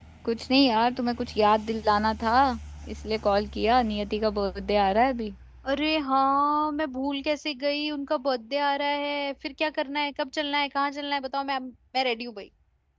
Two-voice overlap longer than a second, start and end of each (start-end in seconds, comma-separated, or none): none